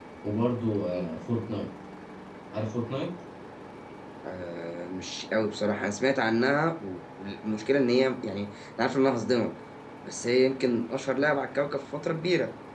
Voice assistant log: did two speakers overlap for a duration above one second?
No

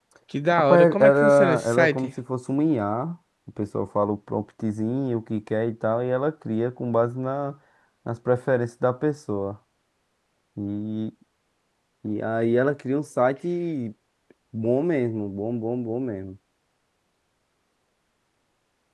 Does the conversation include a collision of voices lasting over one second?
Yes, from 0.5 s

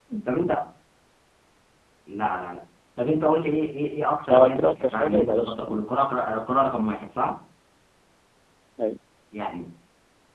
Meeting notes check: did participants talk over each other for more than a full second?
Yes, from 4.2 s

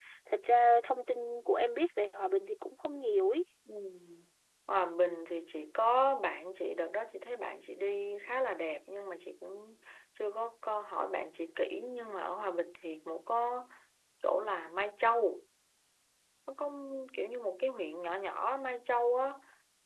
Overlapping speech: No

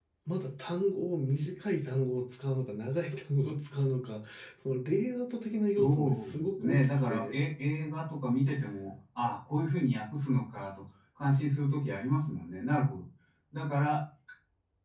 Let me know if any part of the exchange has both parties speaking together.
Yes, from 5.7 s

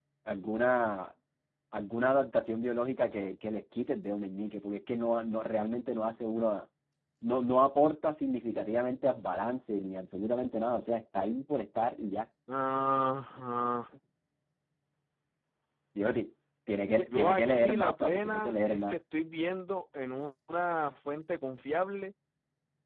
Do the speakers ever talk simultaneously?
Yes, from 17.1 s

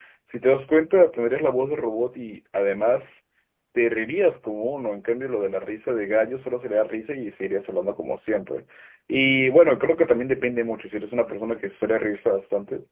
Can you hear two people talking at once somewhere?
No

